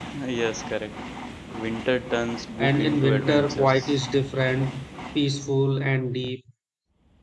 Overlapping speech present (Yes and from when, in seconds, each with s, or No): Yes, from 2.6 s